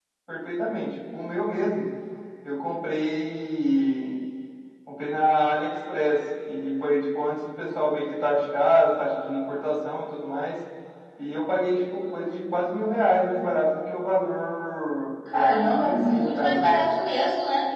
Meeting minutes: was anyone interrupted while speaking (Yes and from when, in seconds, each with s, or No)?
Yes, from 15.2 s